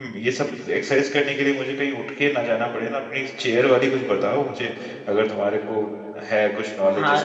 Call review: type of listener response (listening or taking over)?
taking over